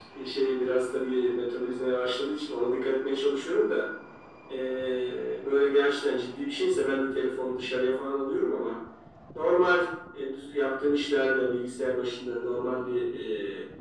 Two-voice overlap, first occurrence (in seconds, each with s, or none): none